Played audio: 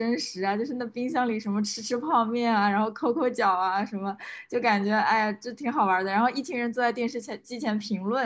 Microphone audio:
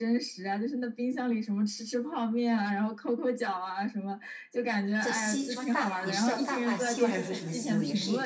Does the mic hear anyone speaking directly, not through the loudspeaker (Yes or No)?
Yes